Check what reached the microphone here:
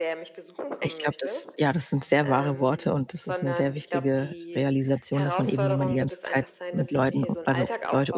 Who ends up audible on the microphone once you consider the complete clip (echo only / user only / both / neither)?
both